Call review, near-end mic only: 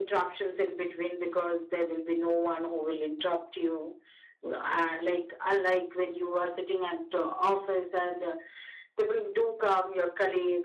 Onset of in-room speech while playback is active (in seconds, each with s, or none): none